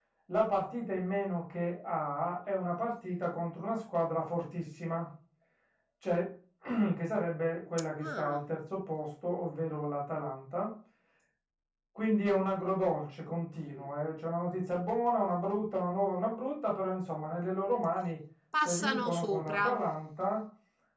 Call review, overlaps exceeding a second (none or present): present